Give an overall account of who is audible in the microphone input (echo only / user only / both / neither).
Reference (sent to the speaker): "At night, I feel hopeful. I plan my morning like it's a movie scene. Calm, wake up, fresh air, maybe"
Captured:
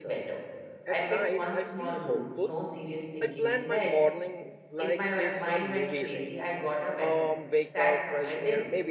both